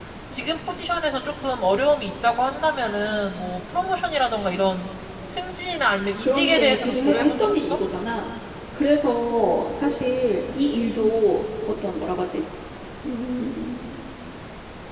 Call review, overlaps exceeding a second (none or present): present